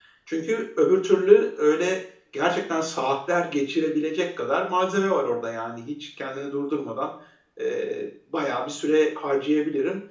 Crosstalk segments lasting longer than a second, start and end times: none

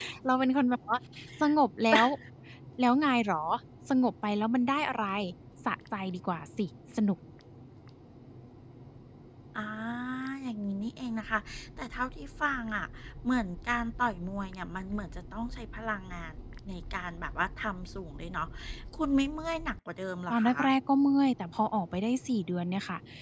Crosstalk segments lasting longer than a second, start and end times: none

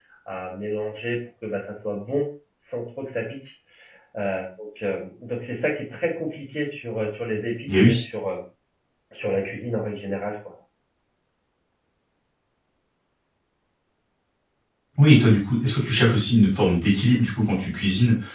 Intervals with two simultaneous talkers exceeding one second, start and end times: none

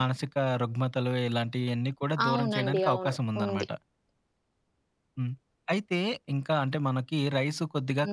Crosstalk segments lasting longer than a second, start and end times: 2.2-3.6

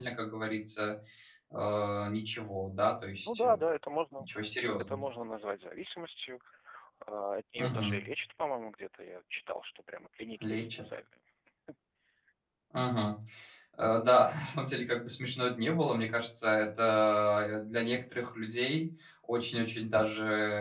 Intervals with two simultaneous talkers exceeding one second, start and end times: none

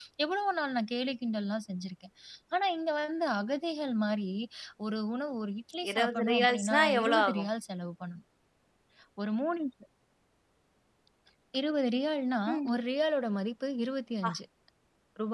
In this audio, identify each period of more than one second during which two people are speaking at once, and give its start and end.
5.9-7.5

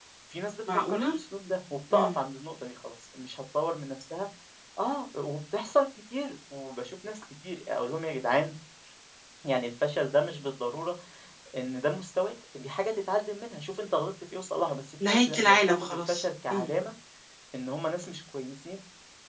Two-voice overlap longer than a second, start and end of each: 15.0-16.7

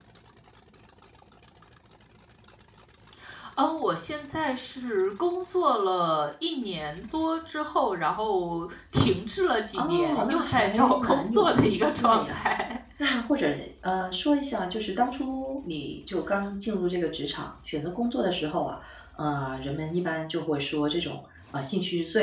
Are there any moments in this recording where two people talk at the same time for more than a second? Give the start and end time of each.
9.8-12.4

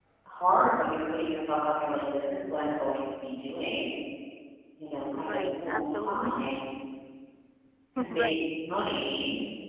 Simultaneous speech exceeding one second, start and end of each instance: 5.1-6.4

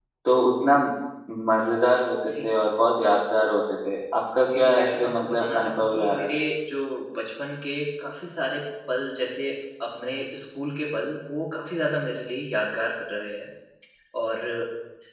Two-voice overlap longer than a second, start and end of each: 4.4-6.3

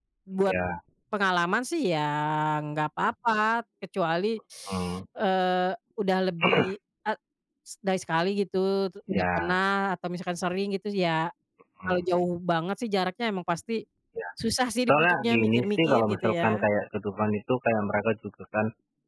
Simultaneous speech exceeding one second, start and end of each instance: 14.9-16.7

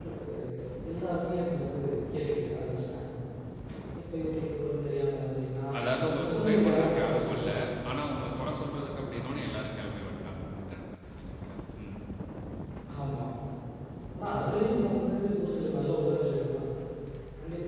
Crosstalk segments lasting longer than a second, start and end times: 6.0-7.4

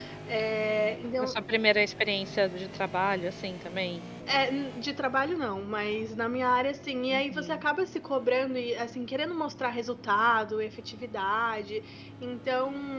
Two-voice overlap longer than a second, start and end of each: none

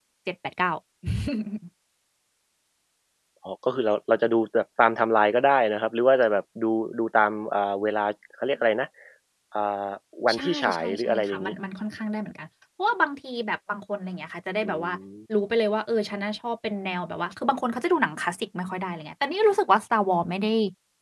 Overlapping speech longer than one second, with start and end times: 10.3-11.5

